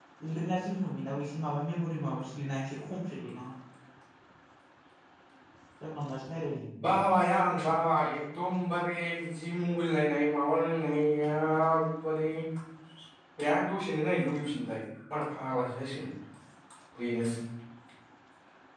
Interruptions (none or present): none